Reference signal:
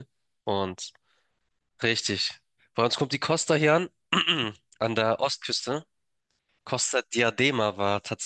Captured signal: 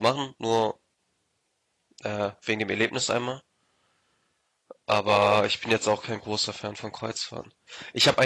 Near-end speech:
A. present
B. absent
A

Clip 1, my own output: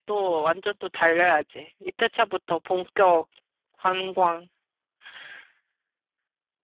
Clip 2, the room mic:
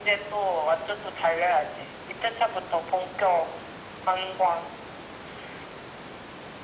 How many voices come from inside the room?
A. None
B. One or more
A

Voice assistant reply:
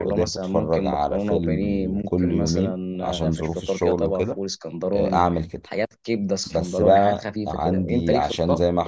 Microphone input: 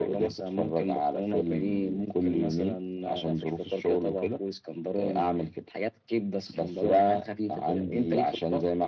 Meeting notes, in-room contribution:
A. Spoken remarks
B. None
B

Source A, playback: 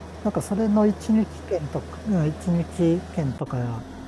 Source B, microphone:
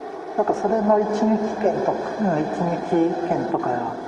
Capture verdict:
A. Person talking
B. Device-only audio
B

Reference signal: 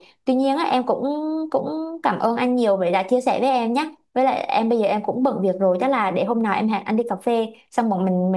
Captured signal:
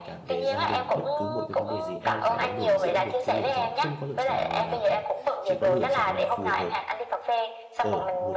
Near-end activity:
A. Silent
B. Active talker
B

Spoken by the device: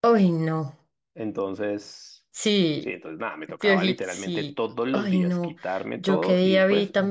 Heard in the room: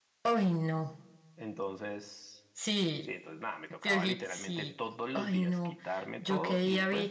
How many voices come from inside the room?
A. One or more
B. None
B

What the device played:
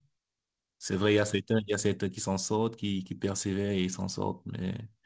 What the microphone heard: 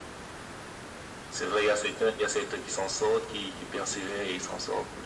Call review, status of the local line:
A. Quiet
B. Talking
A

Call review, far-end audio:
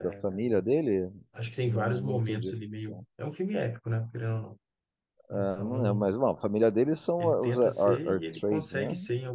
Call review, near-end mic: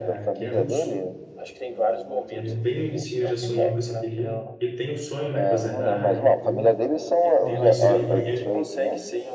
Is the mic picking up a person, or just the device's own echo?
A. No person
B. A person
B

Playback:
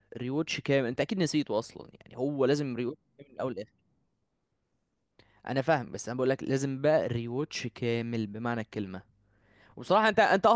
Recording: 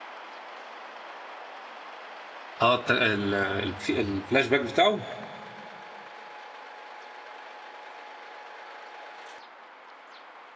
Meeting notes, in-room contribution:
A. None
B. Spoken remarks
B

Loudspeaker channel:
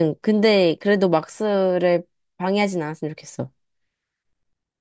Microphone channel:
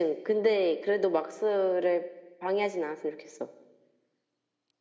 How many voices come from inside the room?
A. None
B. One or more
A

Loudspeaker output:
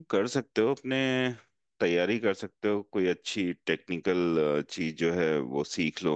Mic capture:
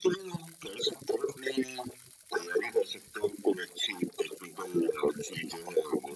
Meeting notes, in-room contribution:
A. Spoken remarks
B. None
B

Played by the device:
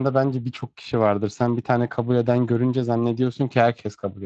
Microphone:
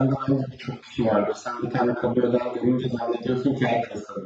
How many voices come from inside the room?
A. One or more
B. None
B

